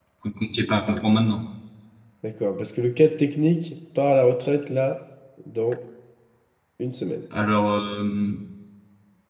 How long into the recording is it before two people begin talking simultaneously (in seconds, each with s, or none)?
none